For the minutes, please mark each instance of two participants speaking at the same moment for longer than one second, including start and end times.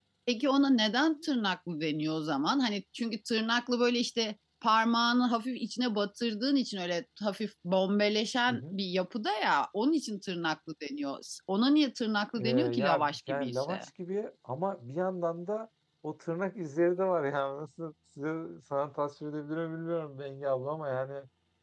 12.3-13.8

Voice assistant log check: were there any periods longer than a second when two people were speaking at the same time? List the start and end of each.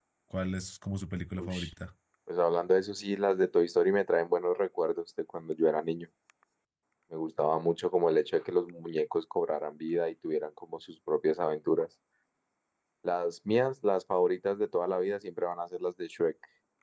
none

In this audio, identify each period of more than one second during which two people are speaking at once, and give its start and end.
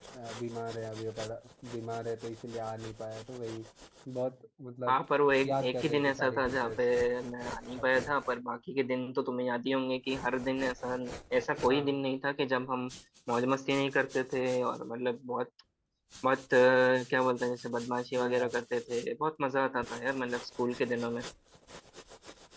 5.5-6.8

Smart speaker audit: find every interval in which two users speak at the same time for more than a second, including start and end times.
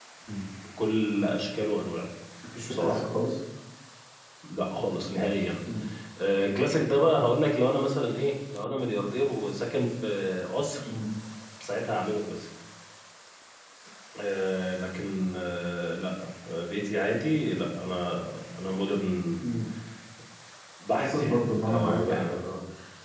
21.0-22.3

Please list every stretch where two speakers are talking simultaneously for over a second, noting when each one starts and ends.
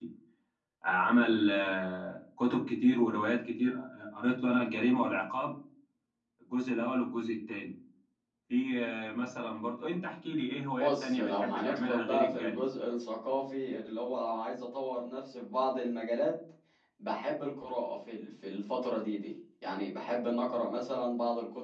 10.8-12.6

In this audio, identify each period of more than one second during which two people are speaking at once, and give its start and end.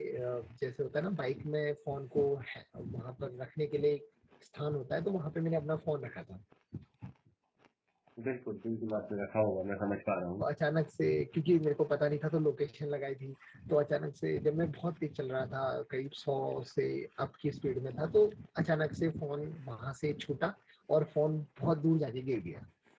none

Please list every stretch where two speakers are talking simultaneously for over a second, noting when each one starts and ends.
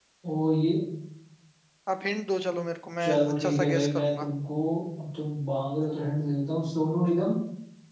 3.0-4.3

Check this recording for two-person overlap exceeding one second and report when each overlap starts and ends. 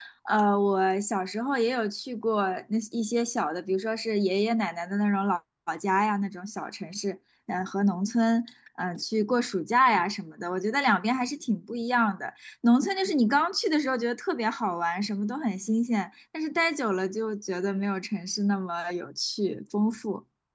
none

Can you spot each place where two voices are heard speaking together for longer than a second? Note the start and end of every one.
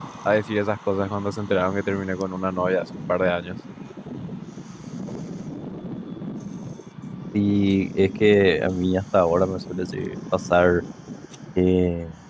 none

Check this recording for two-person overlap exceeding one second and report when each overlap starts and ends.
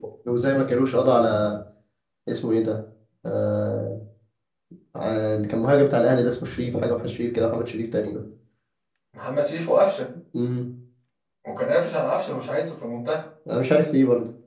none

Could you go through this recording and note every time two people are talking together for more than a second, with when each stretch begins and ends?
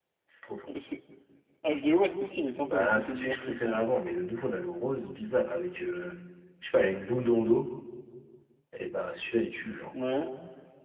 2.7-3.9

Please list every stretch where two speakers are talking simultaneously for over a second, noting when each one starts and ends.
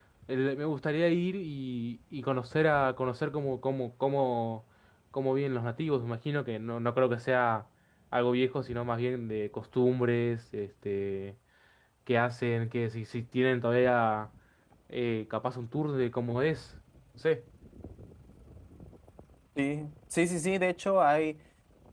none

